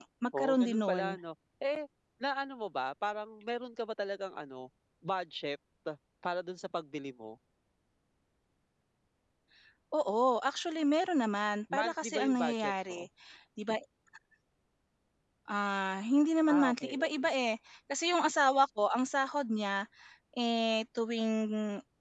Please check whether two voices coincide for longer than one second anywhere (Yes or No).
Yes